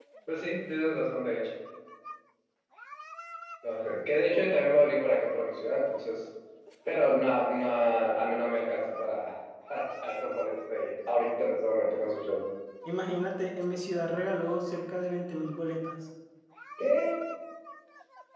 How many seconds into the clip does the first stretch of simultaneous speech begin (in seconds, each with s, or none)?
none